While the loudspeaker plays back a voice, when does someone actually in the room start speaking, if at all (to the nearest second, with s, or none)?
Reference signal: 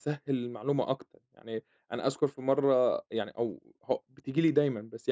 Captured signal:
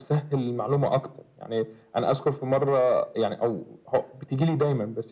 none